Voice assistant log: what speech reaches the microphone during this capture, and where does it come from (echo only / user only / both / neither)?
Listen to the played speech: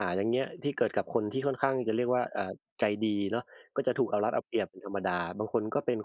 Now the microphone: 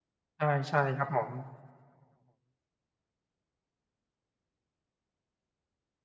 user only